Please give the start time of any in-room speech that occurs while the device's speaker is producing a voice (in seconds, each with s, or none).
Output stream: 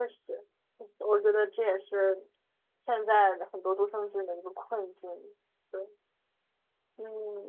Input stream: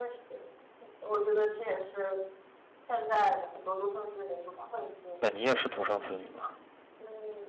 5.2 s